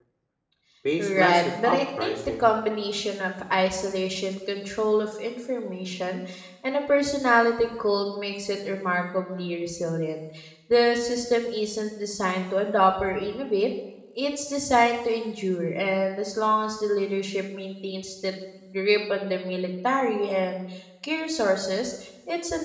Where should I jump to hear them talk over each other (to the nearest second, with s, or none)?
1 s